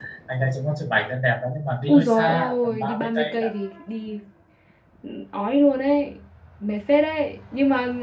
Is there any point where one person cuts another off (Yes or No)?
Yes